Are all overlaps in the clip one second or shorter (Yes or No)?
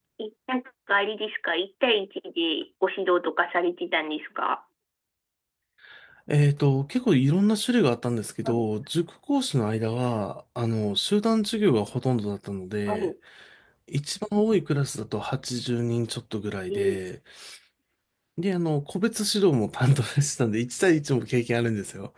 Yes